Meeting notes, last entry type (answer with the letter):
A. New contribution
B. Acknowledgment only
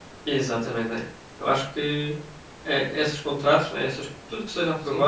B